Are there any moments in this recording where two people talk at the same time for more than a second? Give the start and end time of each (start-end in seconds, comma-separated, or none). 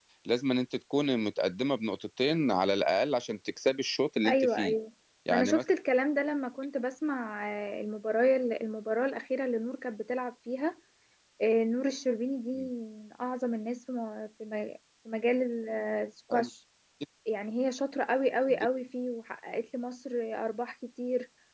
none